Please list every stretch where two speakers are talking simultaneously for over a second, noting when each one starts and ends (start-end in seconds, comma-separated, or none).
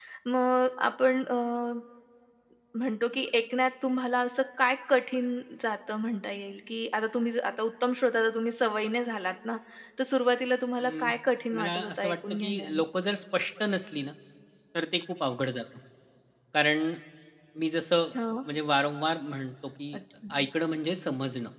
11.6-12.8